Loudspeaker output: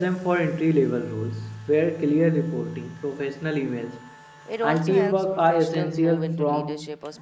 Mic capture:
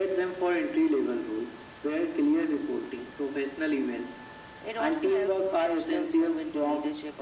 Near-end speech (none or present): none